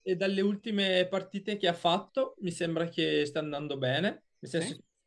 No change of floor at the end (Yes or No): Yes